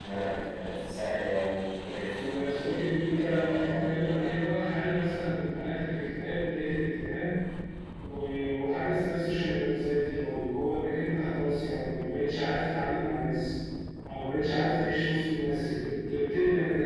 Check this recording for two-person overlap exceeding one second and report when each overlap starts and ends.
2.1-3.9

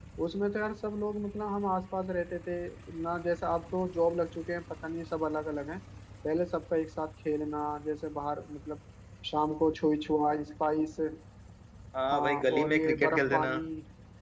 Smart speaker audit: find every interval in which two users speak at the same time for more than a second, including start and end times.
12.1-13.5

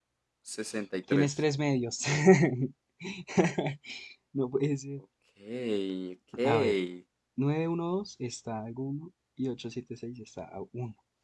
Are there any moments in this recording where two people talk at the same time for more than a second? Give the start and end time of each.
none

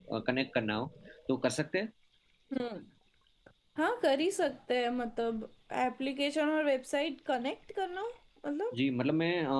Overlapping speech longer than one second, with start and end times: none

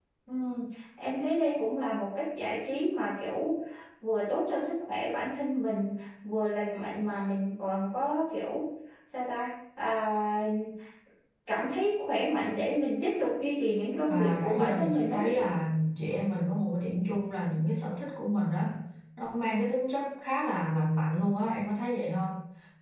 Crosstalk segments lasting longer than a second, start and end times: 14.1-15.4

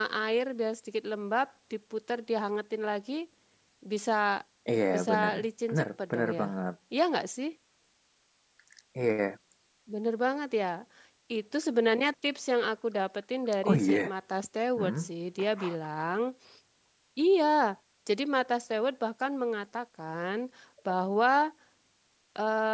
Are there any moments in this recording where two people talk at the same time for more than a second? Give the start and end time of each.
4.9-6.5

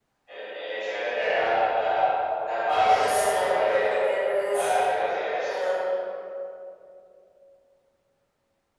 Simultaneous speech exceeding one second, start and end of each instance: 2.7-3.9

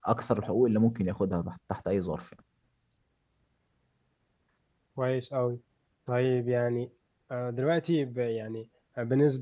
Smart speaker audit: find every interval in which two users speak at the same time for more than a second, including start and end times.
none

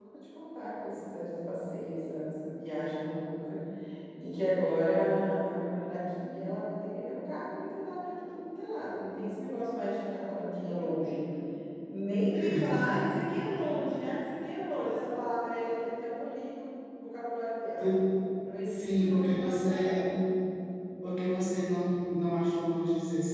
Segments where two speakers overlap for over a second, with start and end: 18.7-20.1

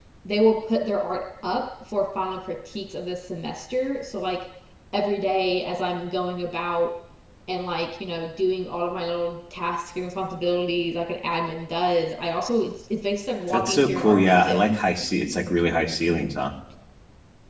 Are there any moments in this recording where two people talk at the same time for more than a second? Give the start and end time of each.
13.5-14.8

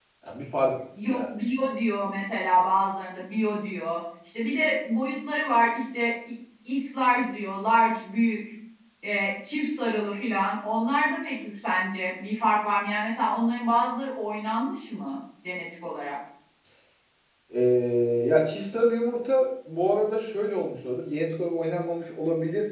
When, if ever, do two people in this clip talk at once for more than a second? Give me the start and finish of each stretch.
none

